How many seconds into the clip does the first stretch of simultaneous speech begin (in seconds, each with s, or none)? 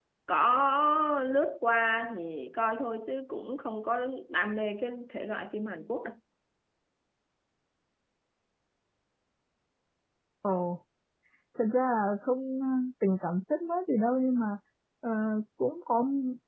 none